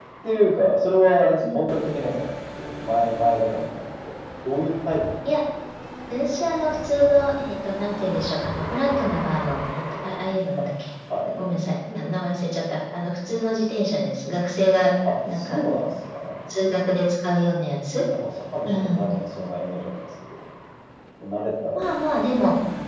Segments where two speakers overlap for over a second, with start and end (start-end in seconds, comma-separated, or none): none